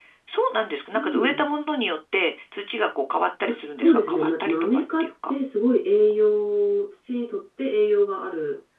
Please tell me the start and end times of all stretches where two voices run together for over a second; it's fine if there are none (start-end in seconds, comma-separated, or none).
3.5-5.1